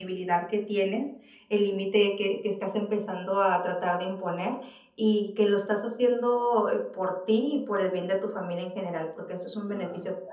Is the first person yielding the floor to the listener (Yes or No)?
Yes